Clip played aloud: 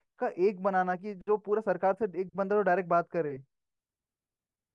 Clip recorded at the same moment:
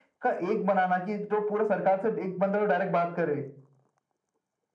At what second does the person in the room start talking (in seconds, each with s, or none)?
none